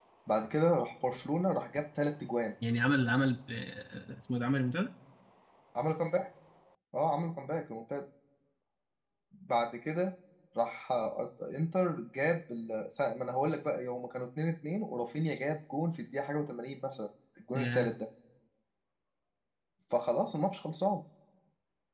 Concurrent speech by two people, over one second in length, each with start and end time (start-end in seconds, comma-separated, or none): none